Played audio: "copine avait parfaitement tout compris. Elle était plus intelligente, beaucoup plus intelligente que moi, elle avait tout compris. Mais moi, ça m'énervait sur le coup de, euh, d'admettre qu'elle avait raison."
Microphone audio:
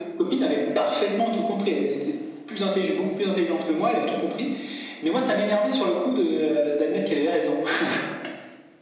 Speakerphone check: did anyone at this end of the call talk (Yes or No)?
No